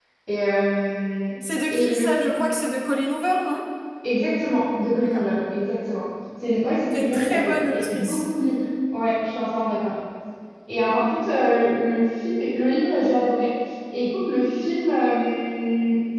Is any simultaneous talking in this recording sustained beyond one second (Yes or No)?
Yes